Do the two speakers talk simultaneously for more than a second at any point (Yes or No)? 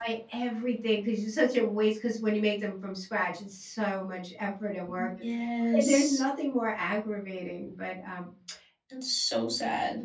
No